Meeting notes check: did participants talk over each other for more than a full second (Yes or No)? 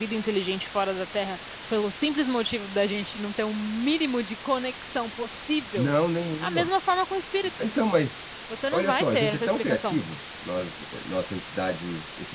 Yes